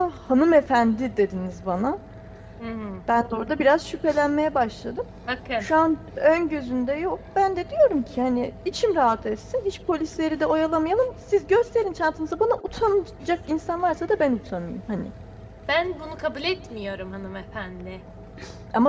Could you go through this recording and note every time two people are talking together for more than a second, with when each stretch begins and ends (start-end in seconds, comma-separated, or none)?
none